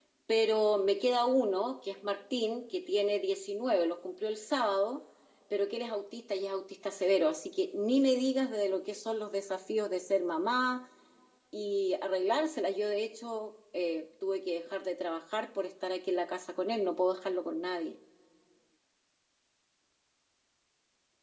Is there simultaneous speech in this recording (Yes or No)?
No